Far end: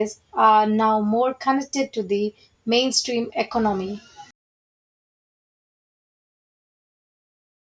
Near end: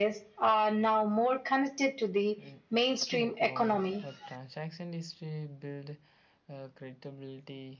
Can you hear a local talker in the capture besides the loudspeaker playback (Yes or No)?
Yes